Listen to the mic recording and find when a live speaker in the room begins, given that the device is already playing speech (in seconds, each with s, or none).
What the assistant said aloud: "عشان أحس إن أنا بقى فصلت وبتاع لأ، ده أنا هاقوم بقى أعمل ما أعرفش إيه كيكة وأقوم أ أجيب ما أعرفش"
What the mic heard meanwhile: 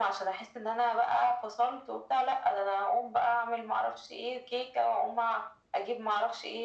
none